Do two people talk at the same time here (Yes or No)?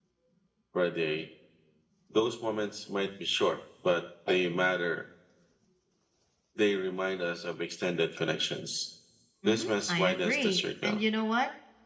Yes